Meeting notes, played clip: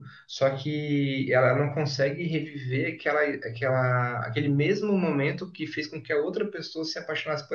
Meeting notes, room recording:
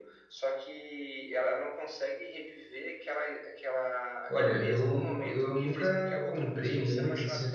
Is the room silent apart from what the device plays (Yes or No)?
No